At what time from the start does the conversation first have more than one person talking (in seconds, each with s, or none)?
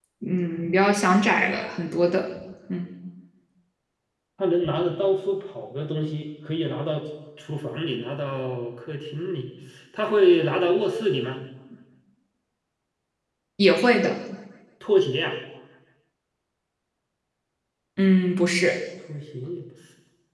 none